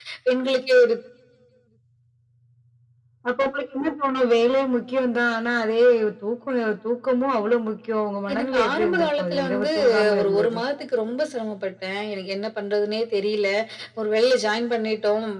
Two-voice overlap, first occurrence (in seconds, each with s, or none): 8.3 s